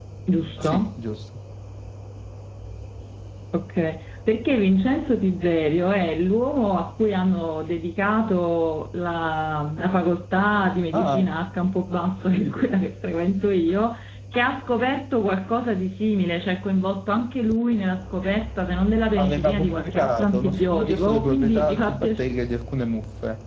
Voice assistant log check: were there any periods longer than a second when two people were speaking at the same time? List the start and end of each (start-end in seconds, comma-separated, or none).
19.2-22.3